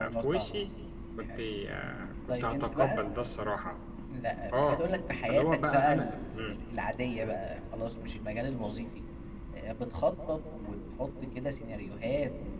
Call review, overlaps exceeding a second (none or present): present